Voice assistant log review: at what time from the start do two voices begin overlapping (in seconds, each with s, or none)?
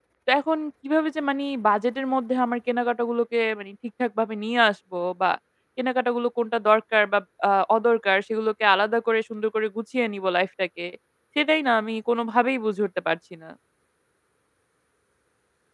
none